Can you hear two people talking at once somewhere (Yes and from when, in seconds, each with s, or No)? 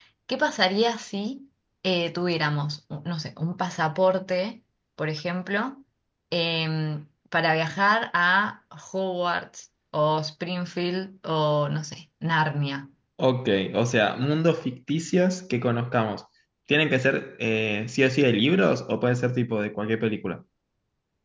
No